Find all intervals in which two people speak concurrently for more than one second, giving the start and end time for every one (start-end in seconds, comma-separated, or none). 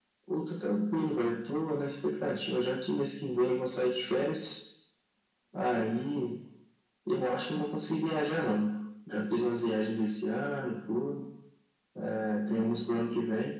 none